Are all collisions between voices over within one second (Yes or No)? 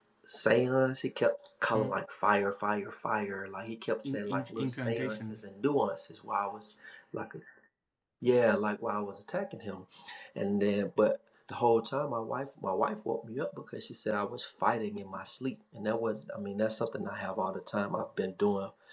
No